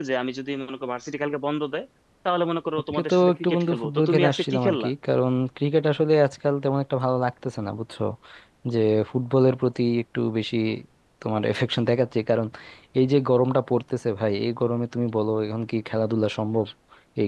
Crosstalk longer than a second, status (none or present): present